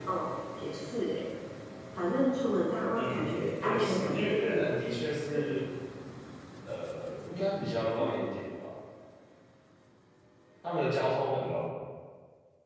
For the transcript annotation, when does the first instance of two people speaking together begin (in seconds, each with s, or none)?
3.0 s